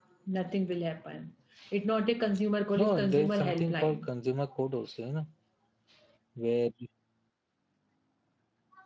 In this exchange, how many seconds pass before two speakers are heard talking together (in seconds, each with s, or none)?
2.8 s